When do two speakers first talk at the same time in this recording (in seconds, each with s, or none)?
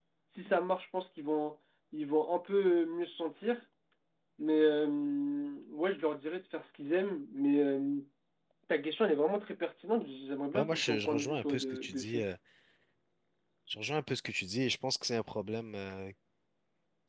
10.5 s